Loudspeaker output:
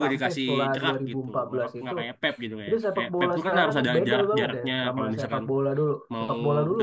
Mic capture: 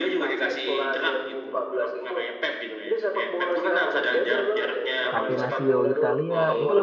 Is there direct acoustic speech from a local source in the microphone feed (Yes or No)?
Yes